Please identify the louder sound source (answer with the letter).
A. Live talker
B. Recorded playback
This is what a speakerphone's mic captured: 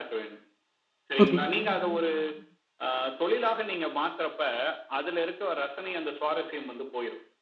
A